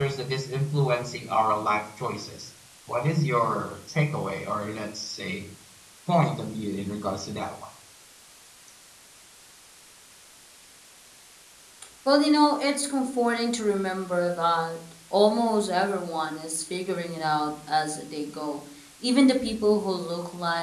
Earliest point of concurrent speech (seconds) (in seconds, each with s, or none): none